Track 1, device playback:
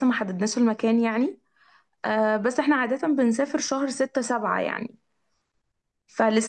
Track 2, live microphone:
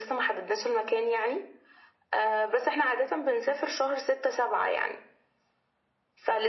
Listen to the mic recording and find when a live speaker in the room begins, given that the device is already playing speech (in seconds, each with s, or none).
none